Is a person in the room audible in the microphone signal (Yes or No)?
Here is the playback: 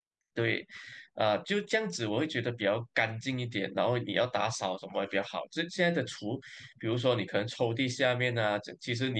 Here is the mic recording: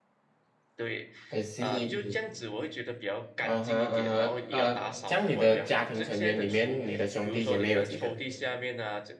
Yes